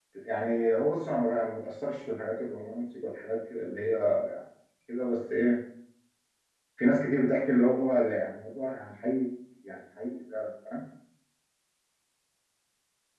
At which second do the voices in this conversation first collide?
none

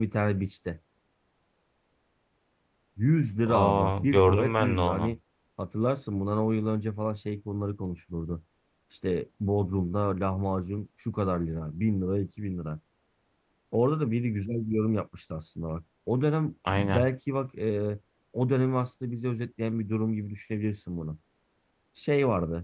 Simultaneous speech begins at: 3 s

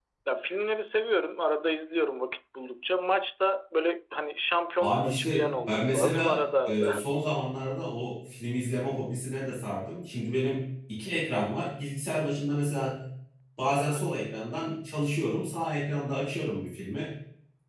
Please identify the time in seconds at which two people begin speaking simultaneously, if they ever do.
5 s

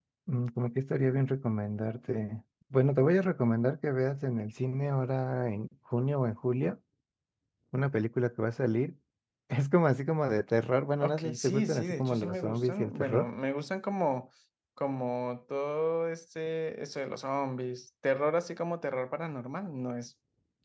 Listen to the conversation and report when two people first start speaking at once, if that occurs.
11 s

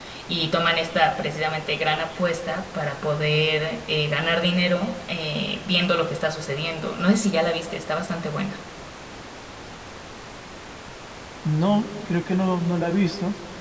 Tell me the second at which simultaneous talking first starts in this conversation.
none

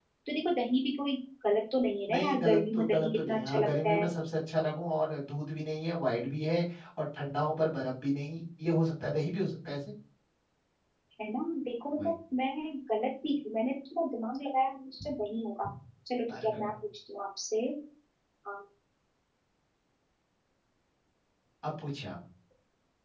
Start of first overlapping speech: 2 s

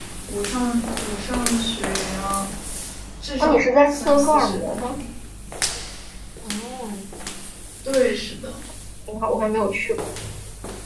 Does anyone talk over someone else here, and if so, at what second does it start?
3 s

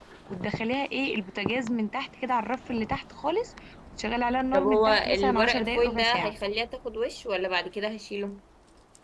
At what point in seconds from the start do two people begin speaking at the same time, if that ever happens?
5 s

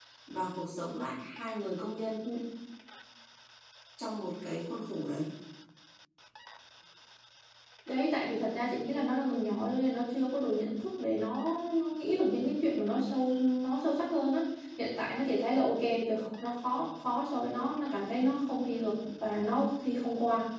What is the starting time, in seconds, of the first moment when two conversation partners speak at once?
none

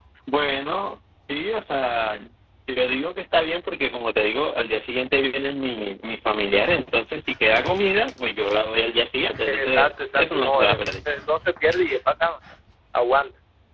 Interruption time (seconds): 9 s

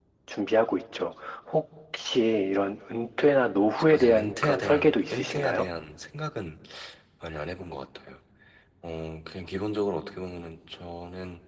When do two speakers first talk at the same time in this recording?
4 s

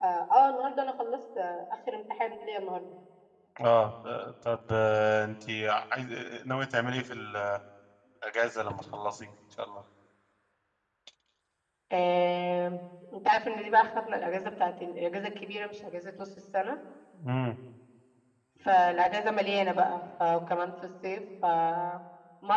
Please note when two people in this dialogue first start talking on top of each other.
none

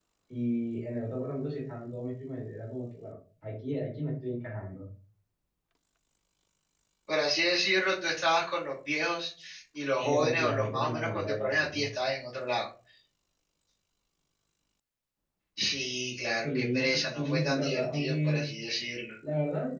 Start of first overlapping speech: 10 s

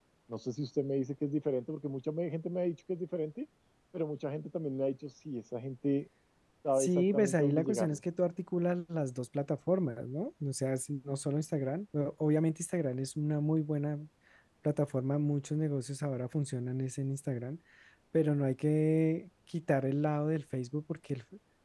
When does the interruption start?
7 s

